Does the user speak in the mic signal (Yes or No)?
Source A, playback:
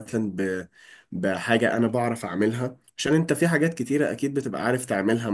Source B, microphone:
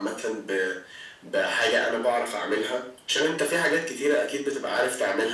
No